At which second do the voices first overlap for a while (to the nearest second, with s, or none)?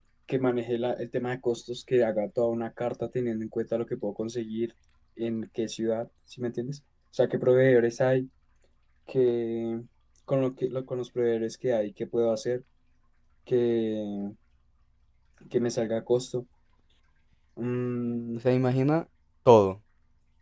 none